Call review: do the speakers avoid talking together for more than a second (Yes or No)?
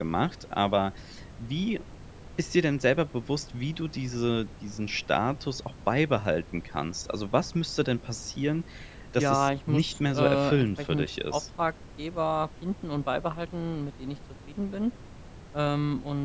No